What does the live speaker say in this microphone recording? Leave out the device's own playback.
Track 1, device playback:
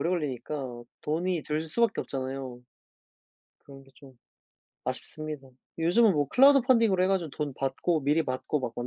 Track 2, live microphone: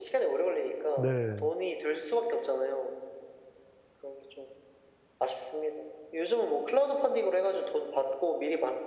네.

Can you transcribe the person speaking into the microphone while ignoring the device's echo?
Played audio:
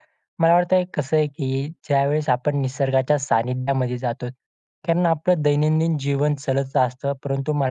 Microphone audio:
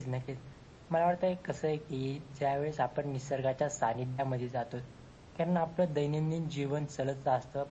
none

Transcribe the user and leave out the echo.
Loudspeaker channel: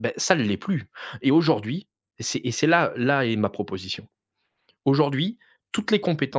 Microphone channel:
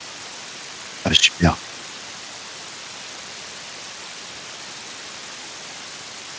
Ah super,

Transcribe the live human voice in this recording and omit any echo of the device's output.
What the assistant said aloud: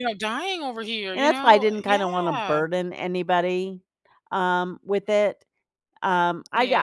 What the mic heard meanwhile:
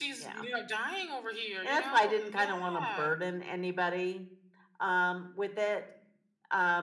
none

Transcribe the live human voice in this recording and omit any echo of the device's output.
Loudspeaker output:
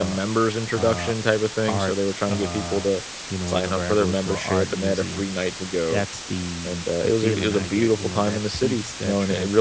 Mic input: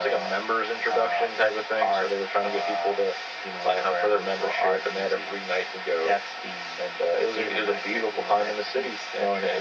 none

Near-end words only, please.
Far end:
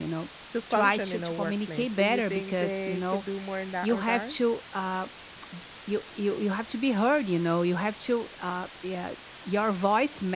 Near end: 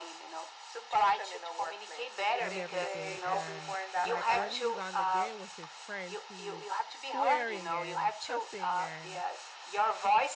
and everything. And like when he's on the game with his friends, he's swearing and cussing and

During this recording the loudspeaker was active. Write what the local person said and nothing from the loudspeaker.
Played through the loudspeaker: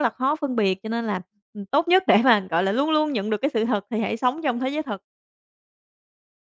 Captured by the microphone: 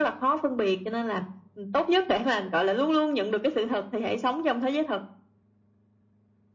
none

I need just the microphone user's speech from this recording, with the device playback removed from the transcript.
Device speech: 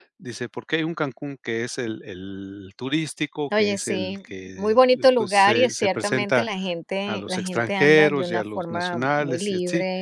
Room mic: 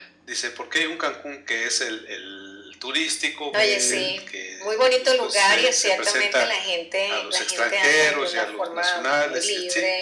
el

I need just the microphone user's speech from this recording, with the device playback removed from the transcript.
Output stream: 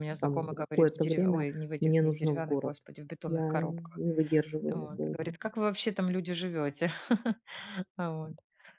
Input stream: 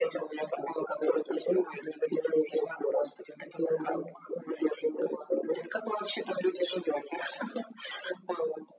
none

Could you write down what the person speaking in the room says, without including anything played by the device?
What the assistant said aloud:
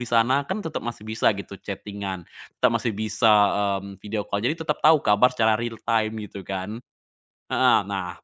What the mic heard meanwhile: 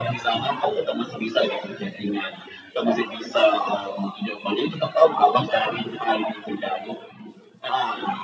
none

